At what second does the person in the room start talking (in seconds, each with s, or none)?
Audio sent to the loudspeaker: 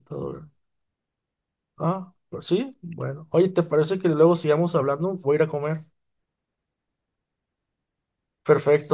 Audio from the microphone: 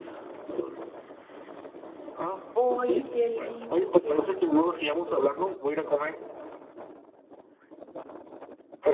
2.5 s